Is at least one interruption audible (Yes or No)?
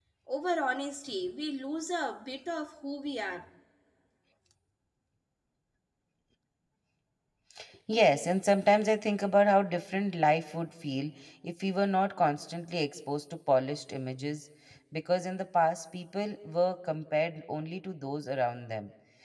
No